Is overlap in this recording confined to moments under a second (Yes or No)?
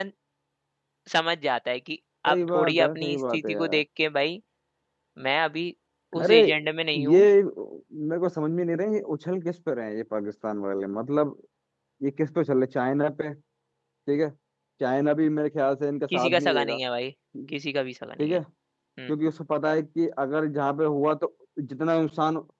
No